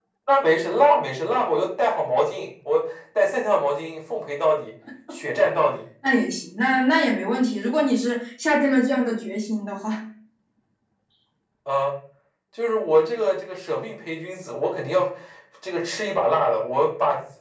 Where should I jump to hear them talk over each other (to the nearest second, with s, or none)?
none